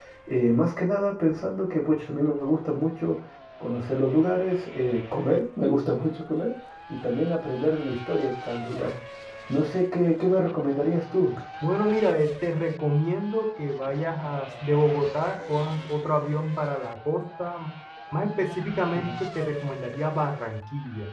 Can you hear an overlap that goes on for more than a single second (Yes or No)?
No